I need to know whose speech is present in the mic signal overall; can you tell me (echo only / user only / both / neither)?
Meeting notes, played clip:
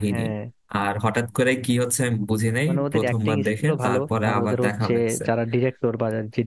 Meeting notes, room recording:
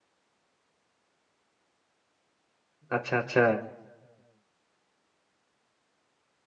user only